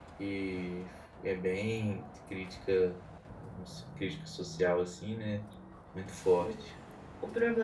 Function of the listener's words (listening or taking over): taking over